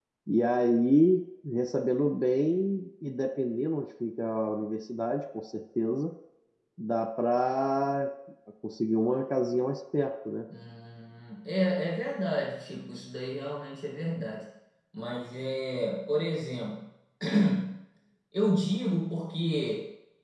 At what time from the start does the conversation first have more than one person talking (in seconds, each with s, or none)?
none